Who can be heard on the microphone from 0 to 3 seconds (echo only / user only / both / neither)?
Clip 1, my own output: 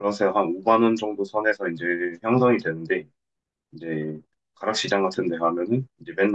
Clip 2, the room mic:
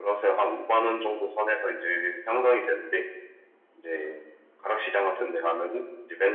echo only